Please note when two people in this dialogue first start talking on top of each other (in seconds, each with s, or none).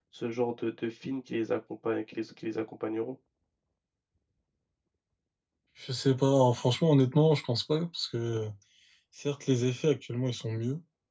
none